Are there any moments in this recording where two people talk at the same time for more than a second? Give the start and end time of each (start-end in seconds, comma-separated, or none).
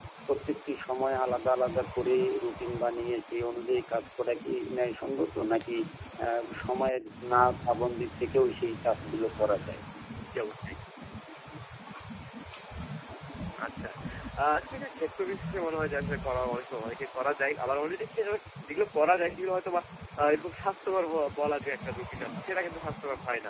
none